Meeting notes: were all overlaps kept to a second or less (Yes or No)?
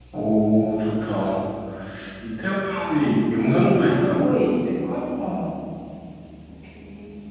No